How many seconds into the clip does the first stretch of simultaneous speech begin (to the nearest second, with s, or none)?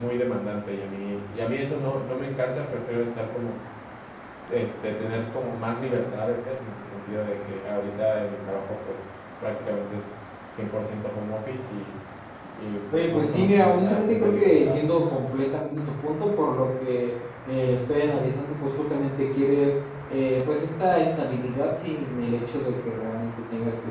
13 s